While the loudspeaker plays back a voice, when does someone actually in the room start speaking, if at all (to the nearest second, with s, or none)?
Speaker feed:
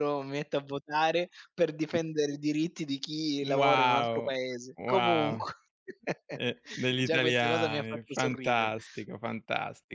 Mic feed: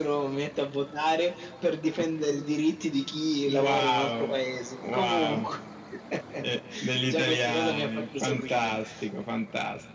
none